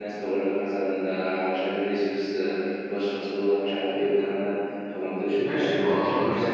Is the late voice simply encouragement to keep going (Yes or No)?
No